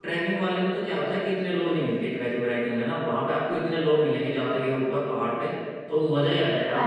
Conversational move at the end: listening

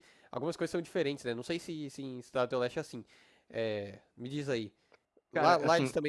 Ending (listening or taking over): listening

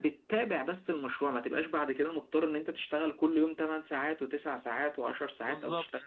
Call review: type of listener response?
listening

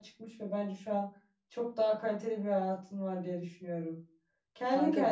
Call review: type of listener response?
listening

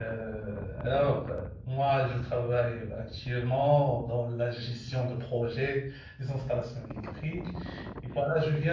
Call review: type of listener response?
listening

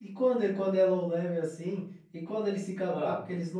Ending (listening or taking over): listening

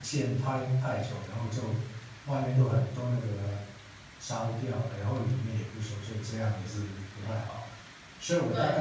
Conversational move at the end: listening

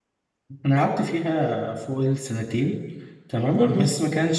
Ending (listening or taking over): listening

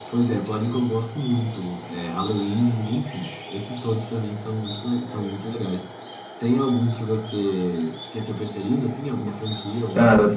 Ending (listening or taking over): taking over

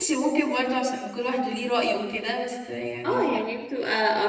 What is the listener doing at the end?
taking over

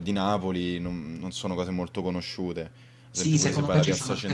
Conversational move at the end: taking over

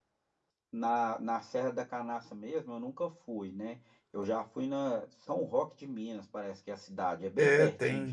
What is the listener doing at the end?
taking over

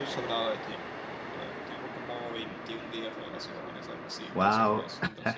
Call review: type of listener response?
listening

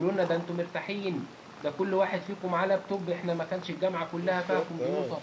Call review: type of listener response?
listening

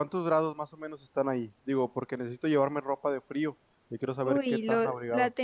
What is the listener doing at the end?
taking over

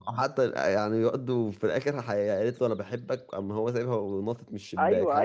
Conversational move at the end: taking over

